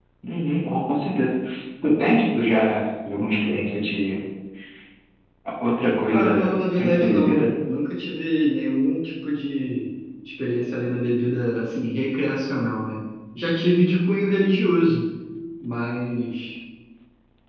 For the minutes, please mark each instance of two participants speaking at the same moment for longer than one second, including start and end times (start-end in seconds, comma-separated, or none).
6.1-7.4